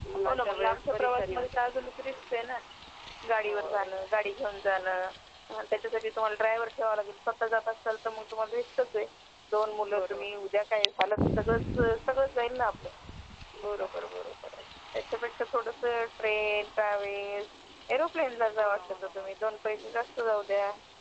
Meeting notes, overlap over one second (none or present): present